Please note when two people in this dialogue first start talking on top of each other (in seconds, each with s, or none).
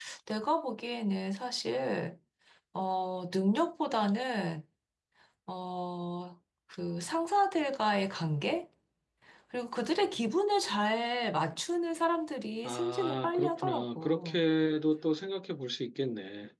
12.6 s